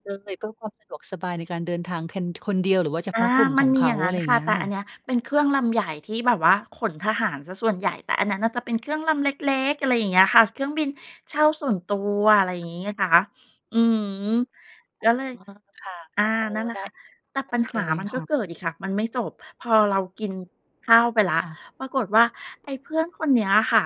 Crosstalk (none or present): present